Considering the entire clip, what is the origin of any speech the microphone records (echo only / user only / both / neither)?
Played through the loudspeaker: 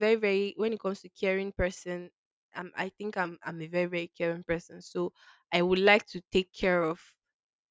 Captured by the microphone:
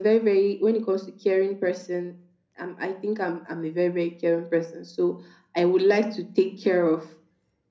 echo only